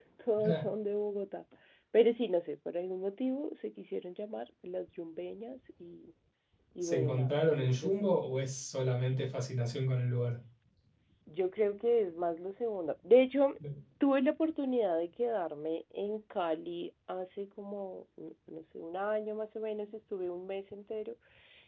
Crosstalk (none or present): present